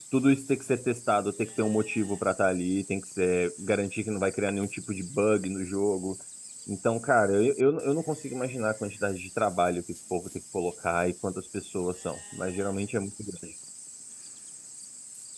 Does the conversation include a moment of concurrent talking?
No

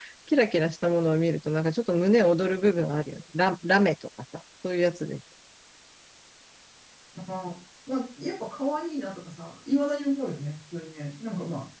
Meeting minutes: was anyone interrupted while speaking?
No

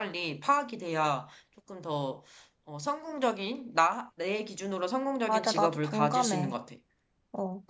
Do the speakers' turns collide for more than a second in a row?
Yes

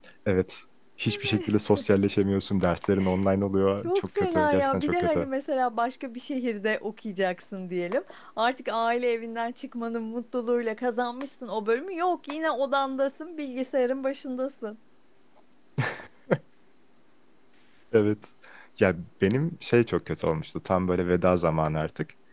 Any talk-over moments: Yes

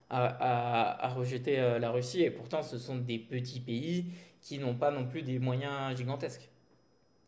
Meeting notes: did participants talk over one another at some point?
No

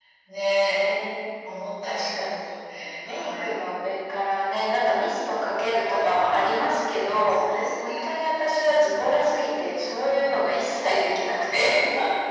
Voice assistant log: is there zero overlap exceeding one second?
No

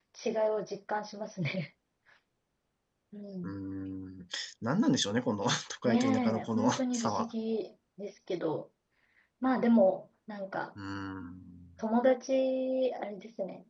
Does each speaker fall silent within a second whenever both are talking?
No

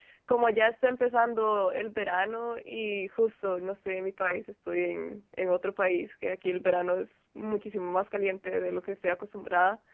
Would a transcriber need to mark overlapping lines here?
No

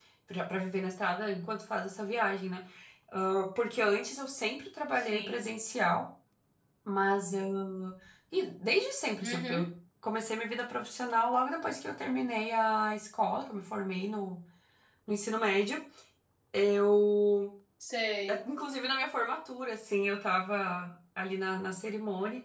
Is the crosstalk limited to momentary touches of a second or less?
Yes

